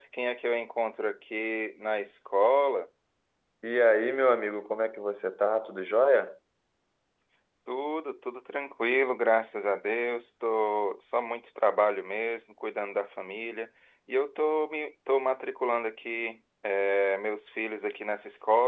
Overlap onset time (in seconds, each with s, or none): none